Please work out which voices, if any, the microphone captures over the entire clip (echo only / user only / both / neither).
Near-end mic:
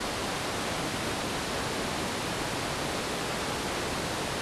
neither